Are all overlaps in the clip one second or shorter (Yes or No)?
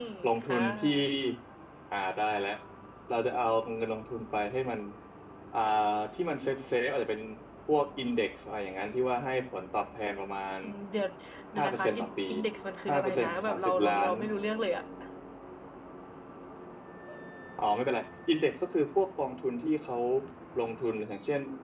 No